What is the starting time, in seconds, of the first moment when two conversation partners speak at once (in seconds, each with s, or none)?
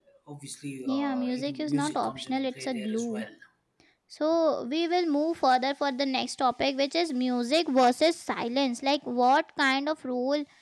0.8 s